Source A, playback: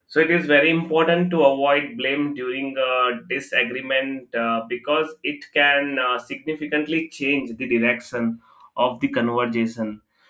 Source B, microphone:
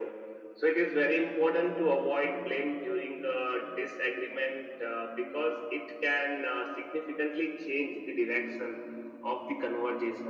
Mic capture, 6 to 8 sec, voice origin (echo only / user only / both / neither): echo only